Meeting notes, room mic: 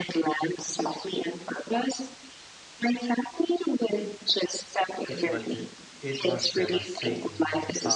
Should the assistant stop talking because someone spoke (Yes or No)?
Yes